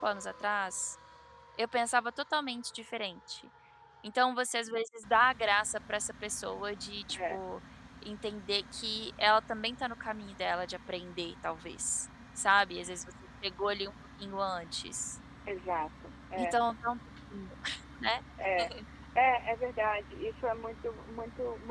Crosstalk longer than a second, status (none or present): none